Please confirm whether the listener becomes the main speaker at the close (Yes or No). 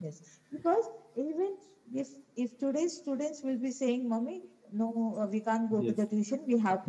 No